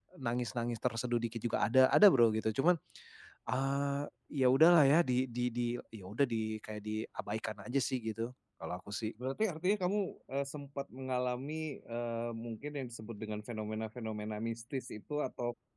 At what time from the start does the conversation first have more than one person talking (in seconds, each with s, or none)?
none